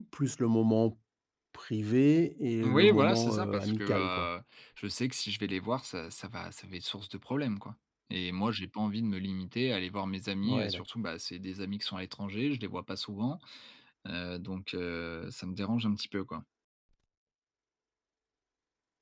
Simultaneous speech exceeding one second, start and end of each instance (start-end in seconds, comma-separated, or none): 2.6-4.3